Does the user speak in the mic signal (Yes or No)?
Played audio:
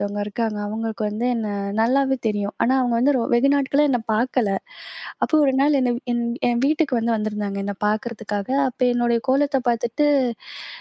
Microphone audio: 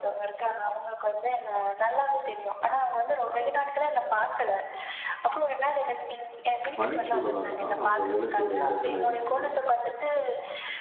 Yes